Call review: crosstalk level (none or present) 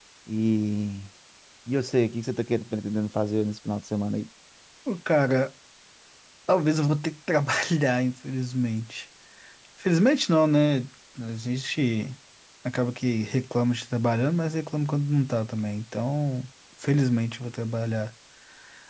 none